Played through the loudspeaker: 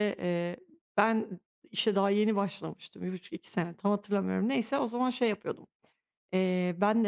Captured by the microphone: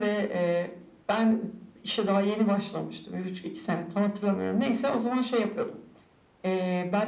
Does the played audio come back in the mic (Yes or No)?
Yes